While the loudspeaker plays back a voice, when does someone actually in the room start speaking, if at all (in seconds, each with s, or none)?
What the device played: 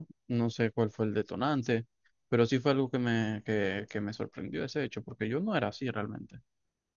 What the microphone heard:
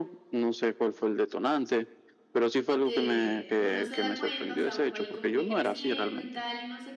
2.8 s